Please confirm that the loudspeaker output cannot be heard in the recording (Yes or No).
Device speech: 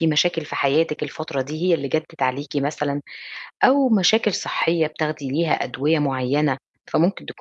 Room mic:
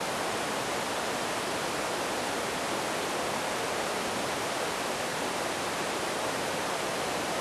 Yes